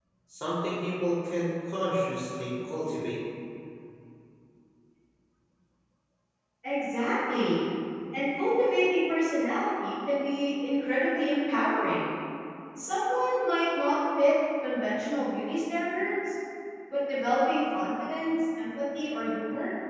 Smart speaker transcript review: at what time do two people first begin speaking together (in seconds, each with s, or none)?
none